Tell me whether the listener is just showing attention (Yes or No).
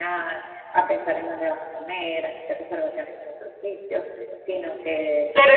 No